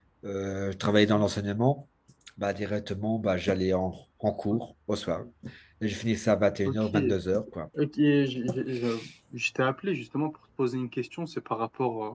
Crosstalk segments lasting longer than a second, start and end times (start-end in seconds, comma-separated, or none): none